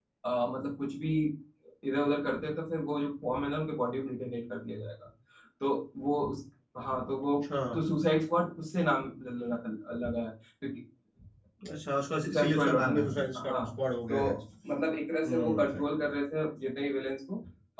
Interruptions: present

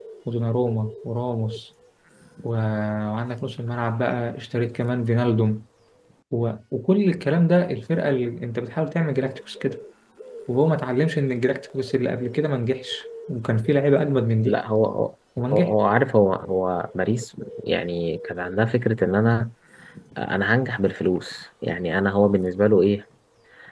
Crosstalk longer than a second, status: none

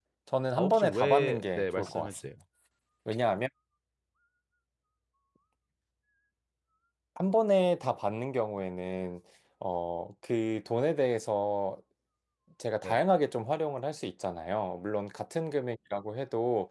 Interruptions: present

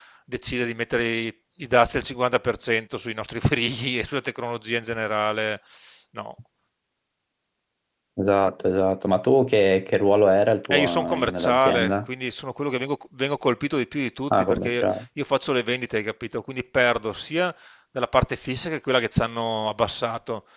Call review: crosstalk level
present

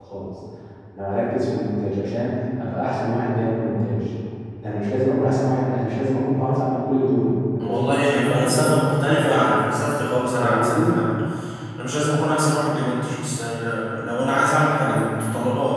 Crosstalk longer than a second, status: present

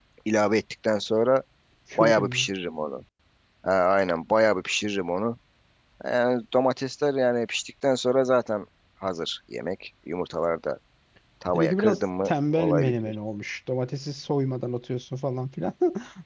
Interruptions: present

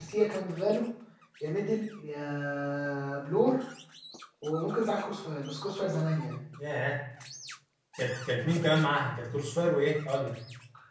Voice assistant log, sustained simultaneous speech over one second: none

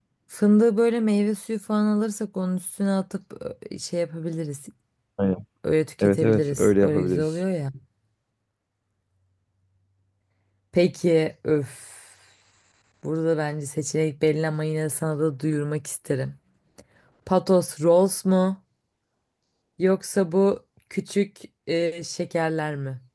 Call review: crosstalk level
present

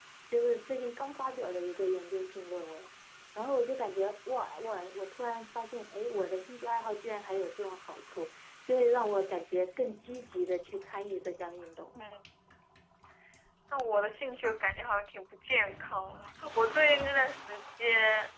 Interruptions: none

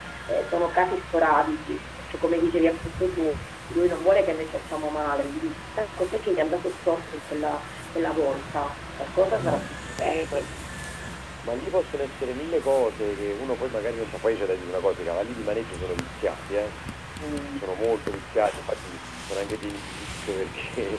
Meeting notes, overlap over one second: none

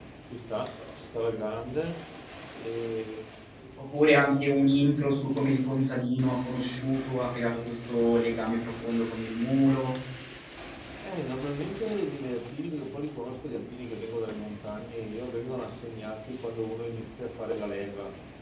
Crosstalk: none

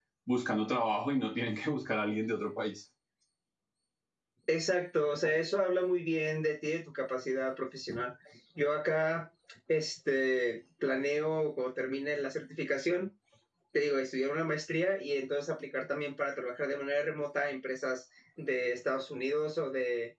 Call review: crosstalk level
none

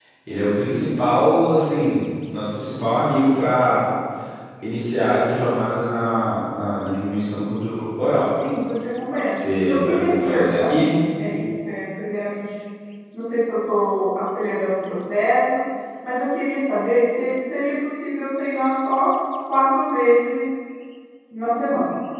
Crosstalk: present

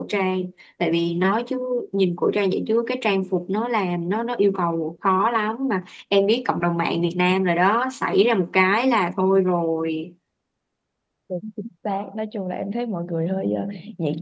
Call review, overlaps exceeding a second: none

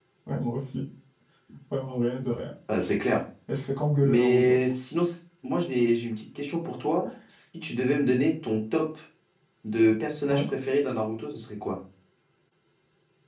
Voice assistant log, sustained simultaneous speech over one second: none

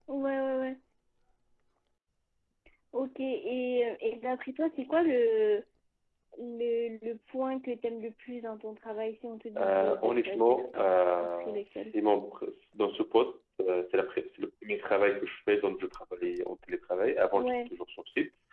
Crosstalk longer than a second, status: present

